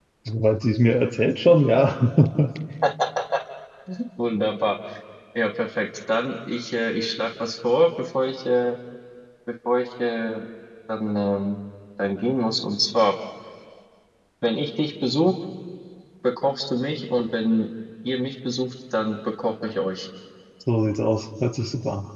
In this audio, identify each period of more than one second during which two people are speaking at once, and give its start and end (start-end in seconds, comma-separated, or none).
none